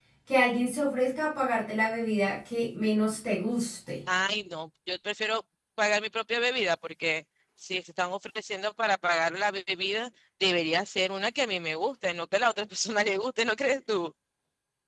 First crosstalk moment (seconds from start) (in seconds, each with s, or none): none